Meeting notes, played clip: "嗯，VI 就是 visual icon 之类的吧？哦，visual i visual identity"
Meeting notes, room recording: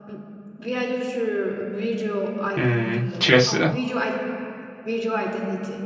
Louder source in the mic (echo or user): user